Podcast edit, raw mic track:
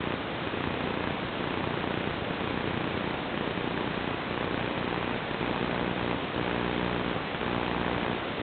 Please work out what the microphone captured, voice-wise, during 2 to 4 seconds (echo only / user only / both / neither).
neither